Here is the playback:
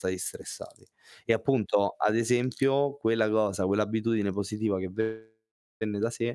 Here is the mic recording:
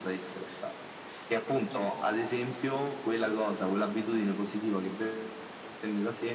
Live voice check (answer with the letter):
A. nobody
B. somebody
A